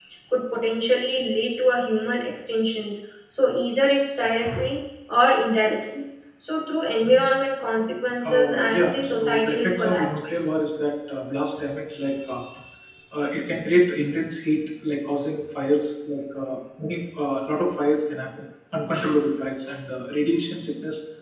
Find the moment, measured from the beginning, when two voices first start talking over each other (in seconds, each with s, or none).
8.2 s